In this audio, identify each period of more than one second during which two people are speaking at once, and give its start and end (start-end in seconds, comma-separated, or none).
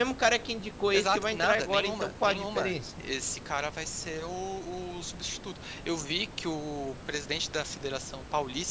0.9-2.7